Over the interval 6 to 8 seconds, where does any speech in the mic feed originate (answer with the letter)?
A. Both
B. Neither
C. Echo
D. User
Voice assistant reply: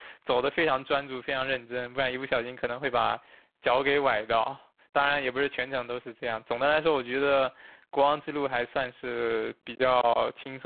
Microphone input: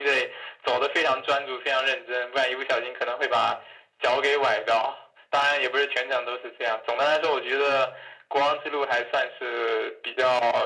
C